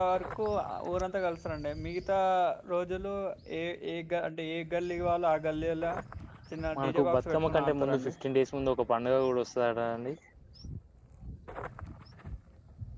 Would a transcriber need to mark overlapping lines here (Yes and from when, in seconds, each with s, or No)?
Yes, from 6.8 s